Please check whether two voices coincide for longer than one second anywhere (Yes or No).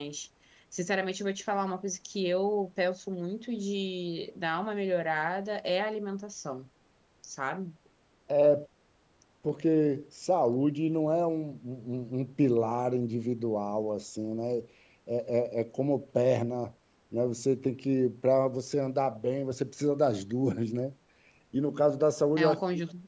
No